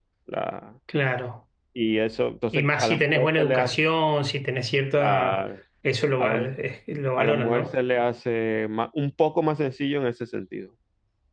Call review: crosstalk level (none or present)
present